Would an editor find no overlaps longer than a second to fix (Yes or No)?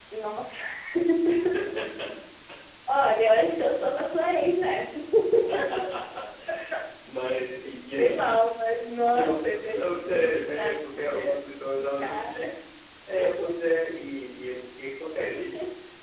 No